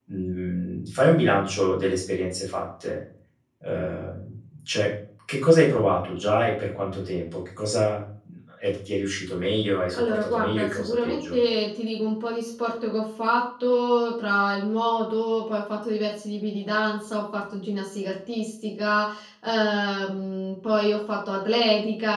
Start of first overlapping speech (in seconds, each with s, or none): 9.9 s